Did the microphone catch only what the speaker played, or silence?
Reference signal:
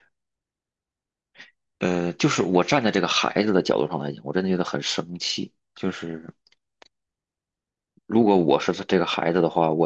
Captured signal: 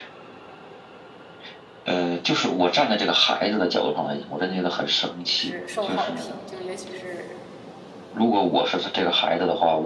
No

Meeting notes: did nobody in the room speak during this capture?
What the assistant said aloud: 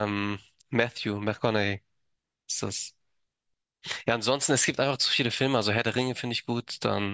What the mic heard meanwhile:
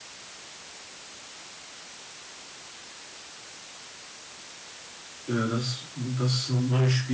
No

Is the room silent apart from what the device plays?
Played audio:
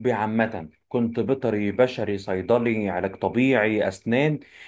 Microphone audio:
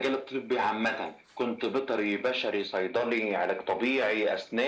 Yes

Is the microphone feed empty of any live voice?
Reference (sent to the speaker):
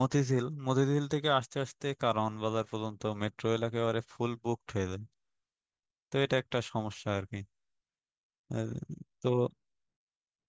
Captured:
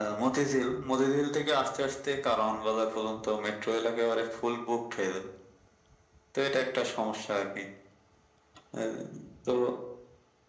Yes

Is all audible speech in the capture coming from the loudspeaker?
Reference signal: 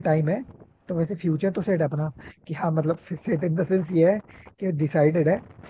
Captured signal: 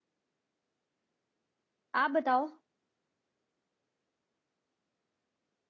No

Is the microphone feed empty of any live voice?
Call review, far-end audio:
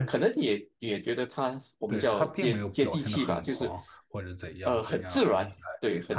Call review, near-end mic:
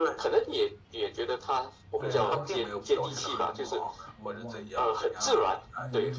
No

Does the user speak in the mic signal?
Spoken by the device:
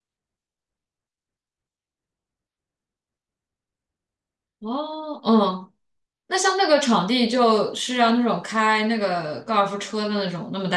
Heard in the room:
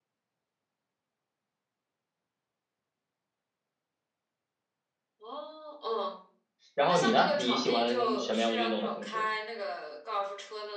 Yes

